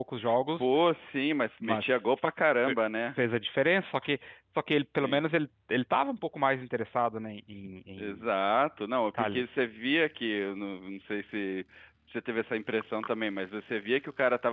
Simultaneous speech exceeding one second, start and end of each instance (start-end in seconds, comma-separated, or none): none